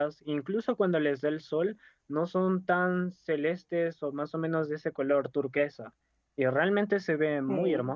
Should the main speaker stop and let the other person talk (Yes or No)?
Yes